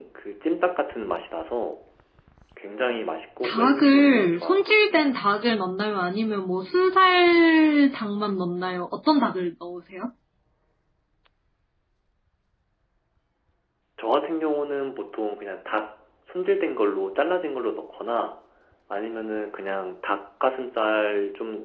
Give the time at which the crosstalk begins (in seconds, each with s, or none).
3.4 s